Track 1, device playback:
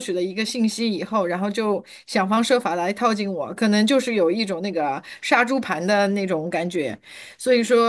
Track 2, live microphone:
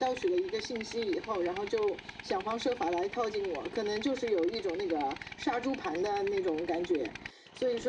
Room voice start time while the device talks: none

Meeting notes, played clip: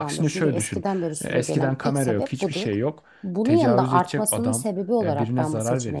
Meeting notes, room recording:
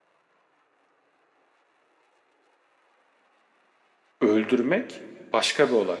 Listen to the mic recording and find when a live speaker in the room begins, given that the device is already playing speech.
4.2 s

